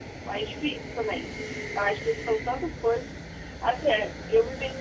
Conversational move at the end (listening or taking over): listening